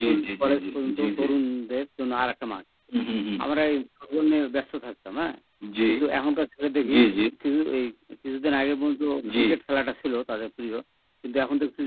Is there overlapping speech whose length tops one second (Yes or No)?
Yes